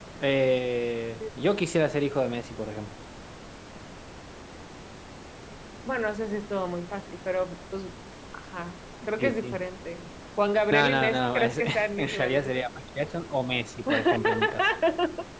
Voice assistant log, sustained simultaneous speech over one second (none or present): present